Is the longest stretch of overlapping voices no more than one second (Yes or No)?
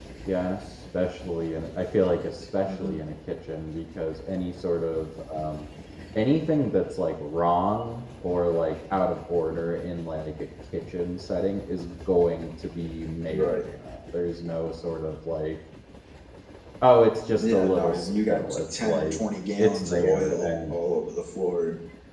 No